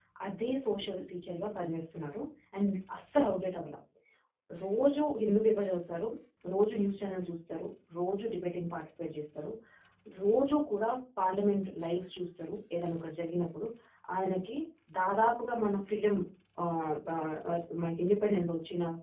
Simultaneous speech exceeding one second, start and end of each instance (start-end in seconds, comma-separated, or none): none